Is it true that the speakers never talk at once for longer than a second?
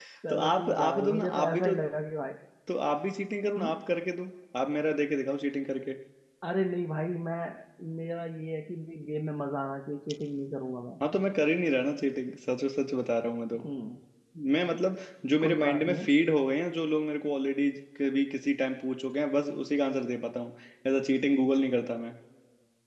No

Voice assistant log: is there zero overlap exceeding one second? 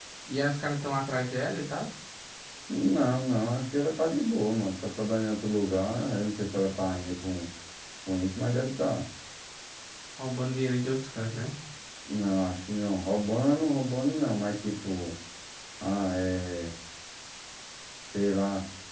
Yes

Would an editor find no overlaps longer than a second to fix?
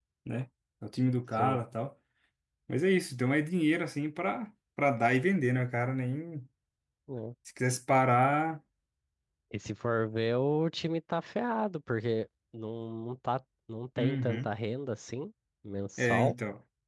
Yes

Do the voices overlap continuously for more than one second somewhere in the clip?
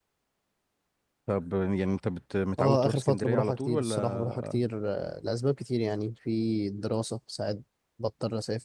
Yes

